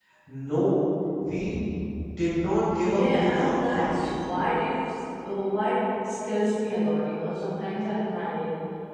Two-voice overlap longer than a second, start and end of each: 2.8-4.1

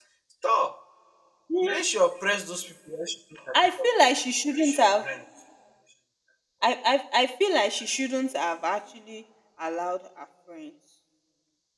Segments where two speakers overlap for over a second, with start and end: none

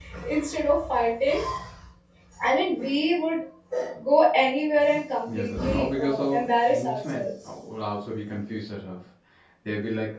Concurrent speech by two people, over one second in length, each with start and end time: 5.3-7.2

